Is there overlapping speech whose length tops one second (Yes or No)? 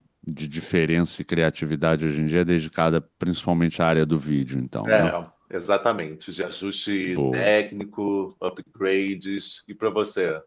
No